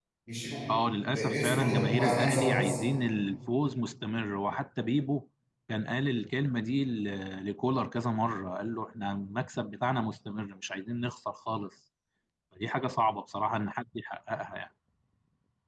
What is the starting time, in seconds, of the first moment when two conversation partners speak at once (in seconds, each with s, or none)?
1.1 s